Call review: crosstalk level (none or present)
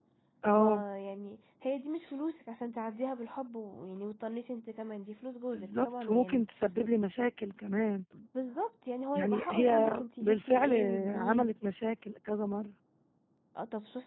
present